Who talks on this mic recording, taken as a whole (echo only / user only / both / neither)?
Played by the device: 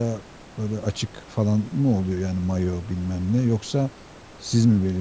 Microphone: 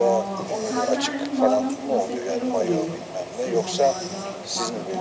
both